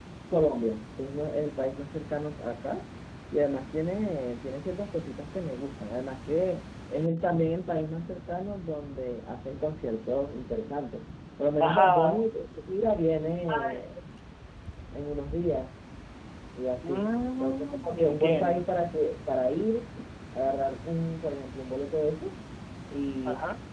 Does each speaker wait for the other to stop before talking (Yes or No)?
No